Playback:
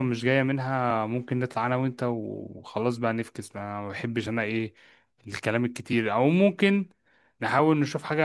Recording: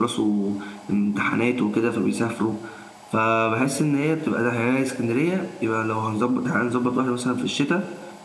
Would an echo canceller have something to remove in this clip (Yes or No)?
No